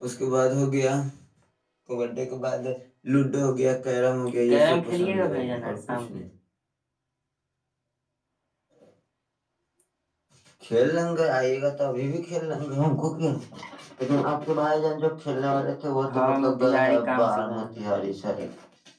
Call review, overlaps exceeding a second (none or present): present